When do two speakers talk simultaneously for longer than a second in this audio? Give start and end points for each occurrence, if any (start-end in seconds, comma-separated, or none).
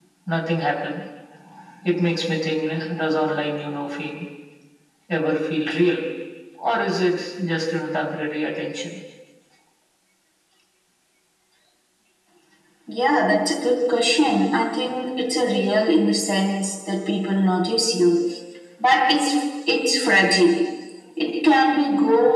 none